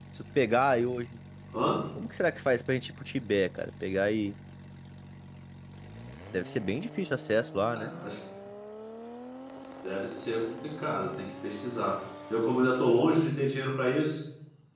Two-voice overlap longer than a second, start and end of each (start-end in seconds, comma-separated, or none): none